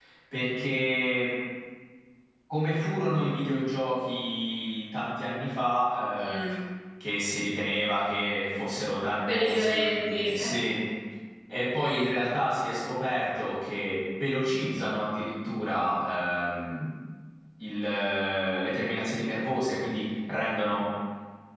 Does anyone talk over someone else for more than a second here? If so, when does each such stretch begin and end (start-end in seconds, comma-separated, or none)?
9.3-10.6